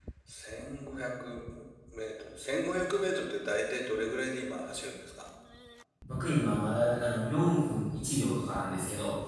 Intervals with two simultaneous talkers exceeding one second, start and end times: none

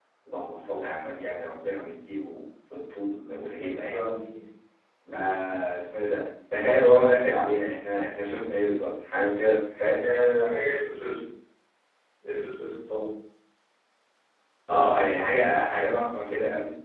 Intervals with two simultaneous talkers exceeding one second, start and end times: none

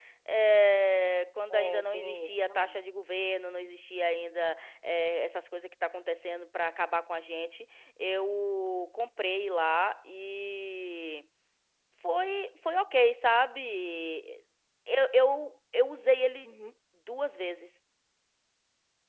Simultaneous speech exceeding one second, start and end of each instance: 1.5-2.8

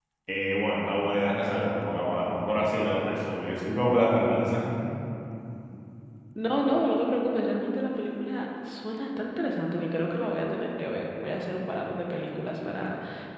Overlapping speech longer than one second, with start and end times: none

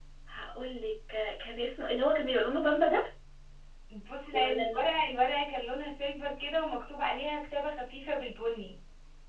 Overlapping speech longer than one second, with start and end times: none

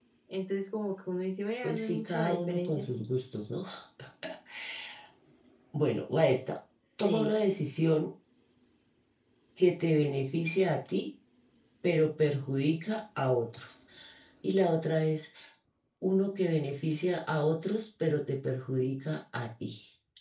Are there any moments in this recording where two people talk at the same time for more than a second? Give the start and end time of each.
1.6-2.8

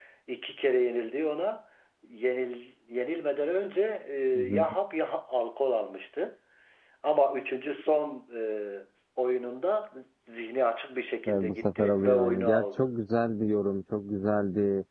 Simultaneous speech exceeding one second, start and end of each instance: 11.3-12.9

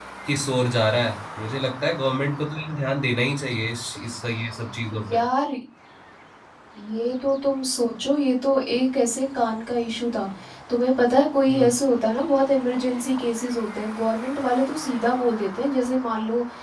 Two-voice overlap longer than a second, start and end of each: none

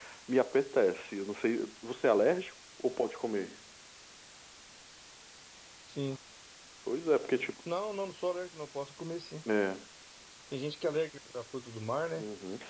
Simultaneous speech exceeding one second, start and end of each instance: none

